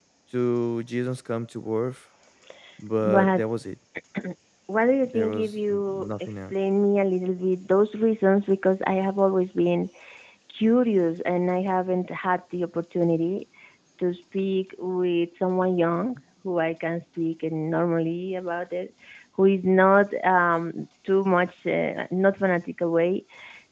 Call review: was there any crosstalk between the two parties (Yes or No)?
Yes